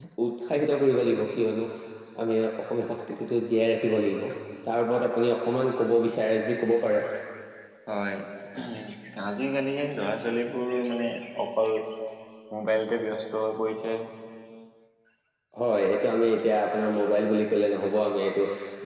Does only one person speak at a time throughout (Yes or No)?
Yes